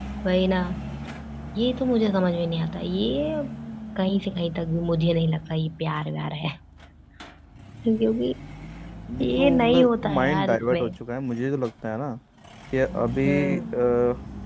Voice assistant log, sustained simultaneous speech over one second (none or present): present